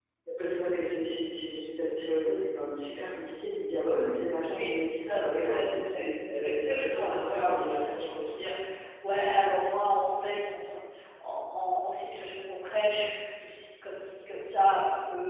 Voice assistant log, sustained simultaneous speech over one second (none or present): present